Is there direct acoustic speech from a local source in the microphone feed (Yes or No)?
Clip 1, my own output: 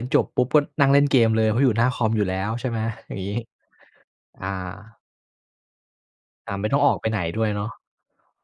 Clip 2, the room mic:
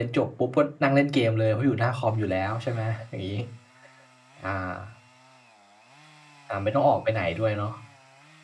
No